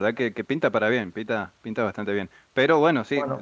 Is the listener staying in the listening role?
Yes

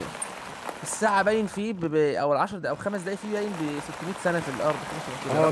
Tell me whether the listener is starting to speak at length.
Yes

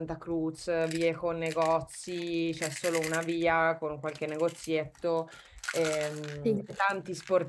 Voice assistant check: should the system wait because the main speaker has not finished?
Yes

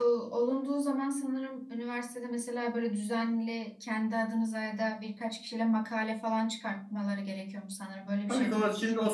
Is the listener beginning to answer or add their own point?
Yes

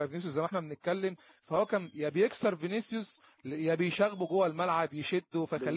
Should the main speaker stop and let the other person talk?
Yes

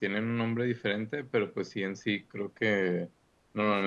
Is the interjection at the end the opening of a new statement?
No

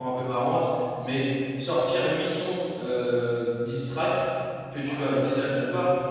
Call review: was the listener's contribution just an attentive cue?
No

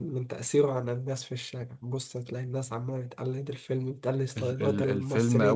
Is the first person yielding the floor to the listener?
Yes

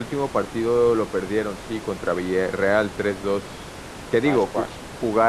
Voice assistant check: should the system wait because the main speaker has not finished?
Yes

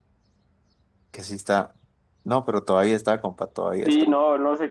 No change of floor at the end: No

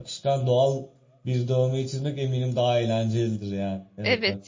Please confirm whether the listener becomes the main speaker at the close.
Yes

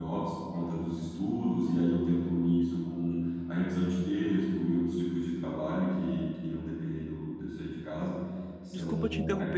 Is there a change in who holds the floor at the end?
Yes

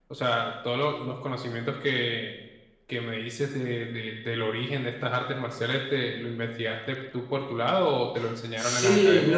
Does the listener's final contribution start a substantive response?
Yes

